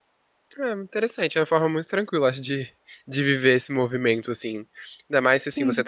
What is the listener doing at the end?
listening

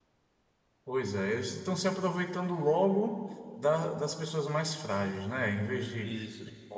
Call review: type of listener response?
listening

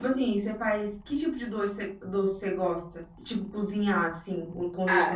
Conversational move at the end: taking over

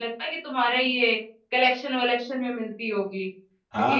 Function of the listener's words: taking over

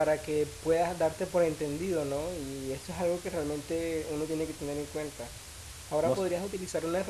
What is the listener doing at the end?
listening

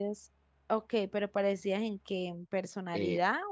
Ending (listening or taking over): taking over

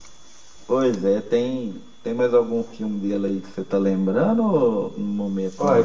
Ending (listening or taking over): taking over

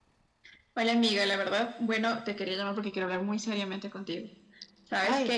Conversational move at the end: listening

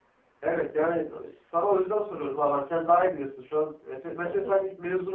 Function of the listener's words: listening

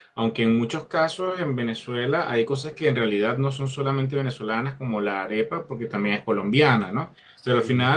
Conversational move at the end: listening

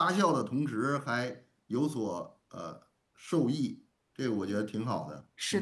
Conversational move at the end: taking over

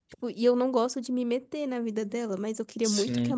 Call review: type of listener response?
listening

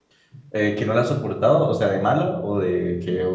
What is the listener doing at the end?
taking over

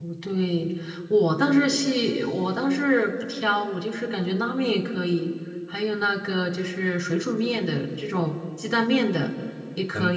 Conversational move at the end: taking over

